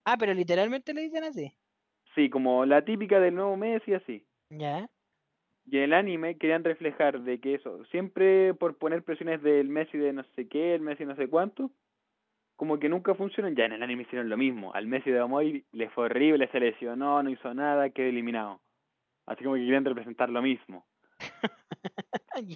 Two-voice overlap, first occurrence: none

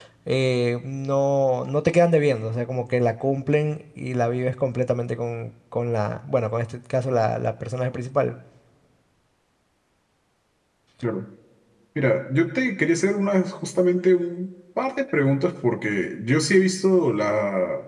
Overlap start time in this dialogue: none

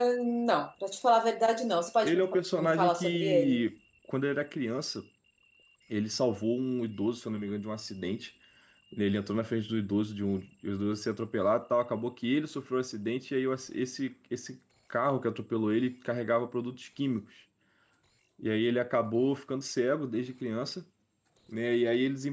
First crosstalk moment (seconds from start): 2.0 s

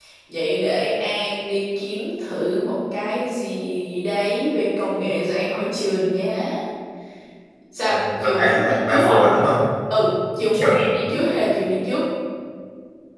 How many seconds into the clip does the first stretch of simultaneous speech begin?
7.8 s

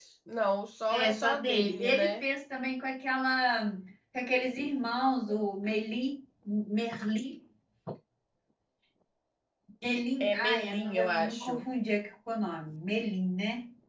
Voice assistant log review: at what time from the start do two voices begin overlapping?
0.9 s

